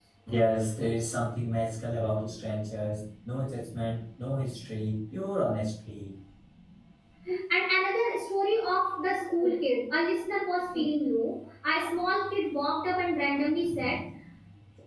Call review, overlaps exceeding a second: none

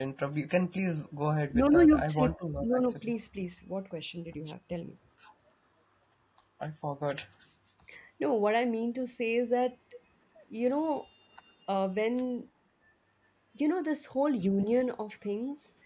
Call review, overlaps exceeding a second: present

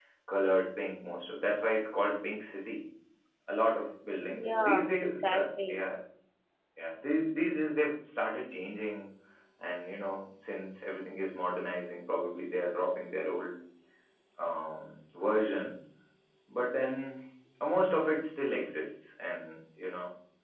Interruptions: present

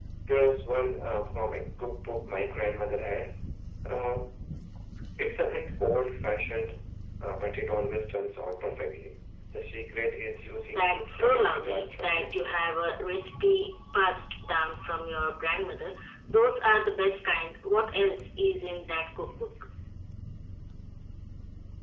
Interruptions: present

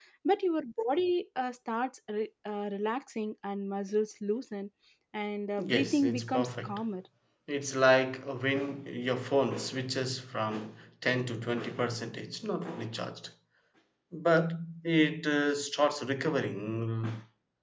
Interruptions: present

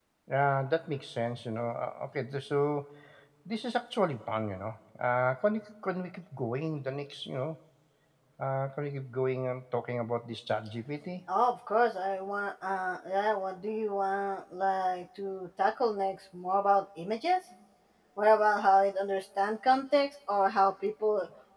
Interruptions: none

